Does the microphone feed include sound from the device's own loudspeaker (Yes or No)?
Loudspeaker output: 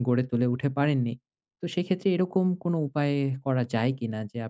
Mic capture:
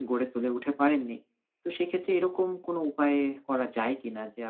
Yes